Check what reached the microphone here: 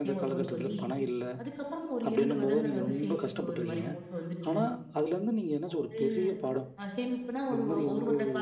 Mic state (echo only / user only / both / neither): both